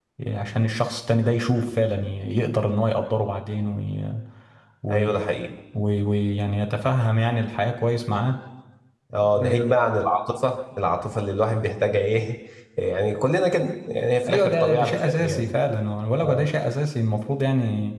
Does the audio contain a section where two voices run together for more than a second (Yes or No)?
Yes